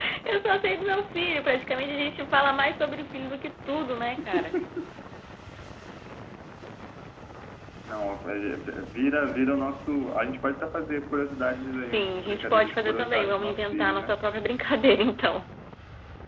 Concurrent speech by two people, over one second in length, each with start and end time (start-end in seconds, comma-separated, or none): 11.9-14.1